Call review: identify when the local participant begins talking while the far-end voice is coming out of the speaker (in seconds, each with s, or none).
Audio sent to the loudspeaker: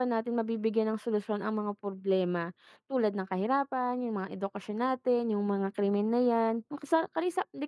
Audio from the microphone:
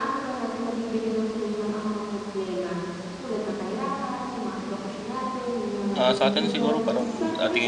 5.9 s